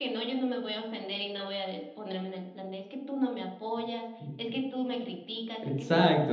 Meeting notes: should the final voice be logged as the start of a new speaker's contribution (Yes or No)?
Yes